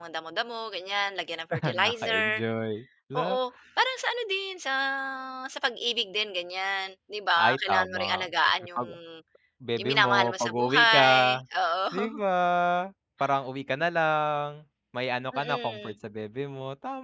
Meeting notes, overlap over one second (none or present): present